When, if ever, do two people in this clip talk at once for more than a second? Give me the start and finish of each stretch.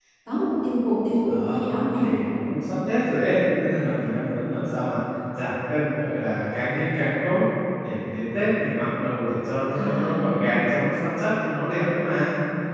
none

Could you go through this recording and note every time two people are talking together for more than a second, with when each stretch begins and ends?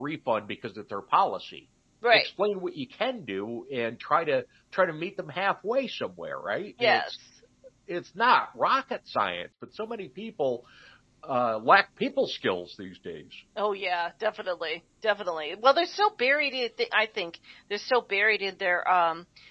none

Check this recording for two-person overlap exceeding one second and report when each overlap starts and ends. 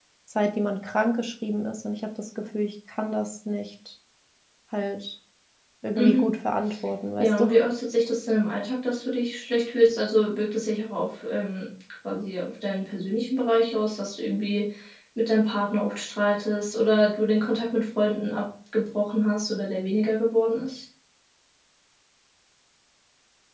none

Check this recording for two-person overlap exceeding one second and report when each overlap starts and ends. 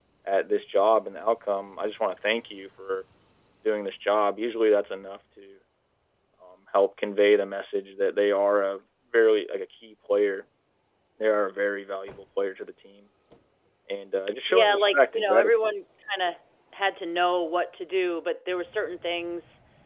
14.5-15.7

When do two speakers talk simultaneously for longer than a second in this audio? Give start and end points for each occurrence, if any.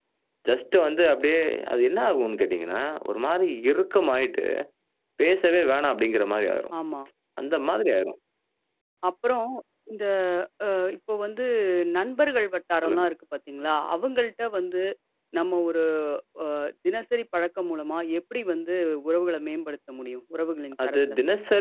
none

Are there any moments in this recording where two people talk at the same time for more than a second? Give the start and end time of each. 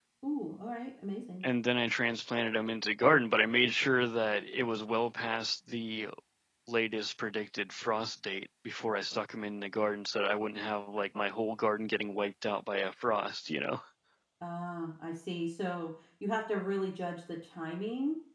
none

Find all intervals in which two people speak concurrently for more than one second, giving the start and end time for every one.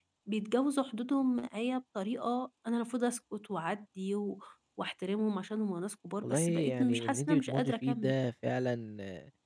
6.2-8.1

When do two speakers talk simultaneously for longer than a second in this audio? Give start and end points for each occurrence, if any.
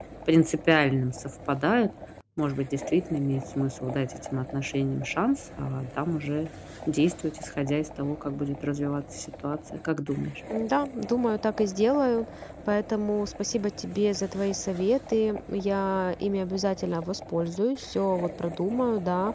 none

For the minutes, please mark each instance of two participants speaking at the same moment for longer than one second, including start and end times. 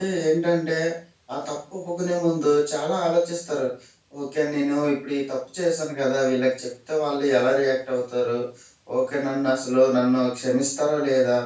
none

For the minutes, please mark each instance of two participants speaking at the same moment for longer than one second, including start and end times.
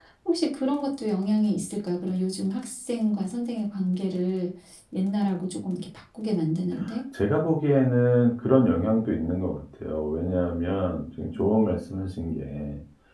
none

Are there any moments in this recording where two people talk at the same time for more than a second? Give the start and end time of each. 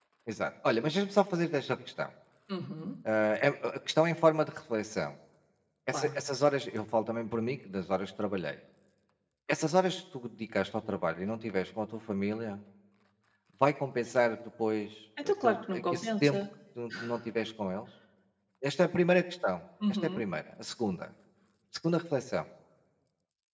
15.2-16.4

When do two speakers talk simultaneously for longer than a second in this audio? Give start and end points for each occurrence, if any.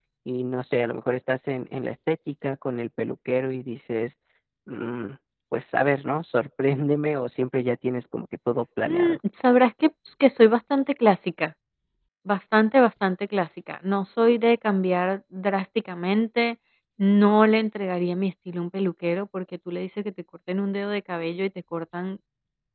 none

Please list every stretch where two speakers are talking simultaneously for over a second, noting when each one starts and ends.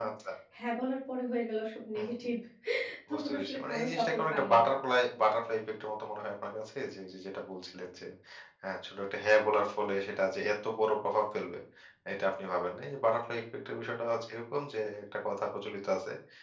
3.1-4.6

